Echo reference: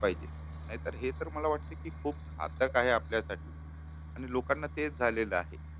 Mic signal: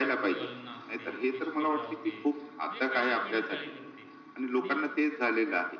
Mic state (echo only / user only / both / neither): both